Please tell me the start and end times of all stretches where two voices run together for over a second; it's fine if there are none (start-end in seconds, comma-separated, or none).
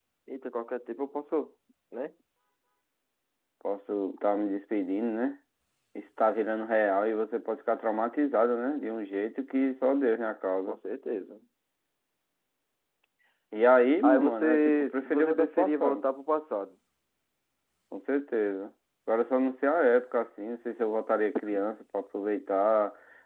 14.0-16.0